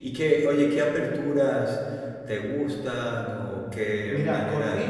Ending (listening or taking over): taking over